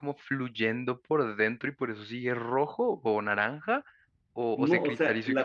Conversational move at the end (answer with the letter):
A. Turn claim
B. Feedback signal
A